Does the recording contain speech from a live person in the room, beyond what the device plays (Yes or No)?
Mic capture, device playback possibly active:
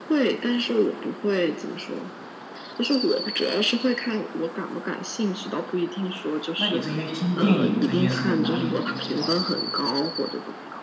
Yes